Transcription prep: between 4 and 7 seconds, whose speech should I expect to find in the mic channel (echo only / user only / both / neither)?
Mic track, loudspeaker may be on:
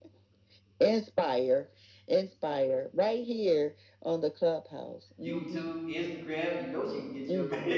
both